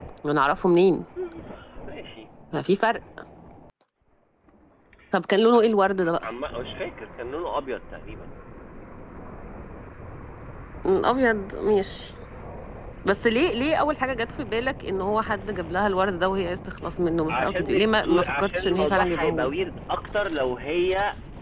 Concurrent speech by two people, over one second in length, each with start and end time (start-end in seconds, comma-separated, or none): 17.3-19.5